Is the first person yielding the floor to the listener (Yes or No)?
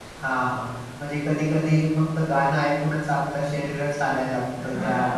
Yes